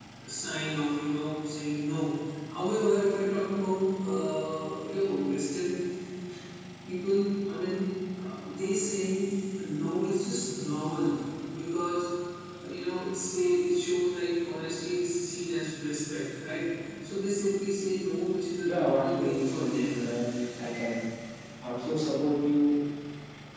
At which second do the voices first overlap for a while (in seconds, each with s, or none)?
18.6 s